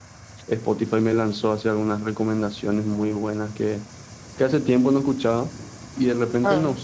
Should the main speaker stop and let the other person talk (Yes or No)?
No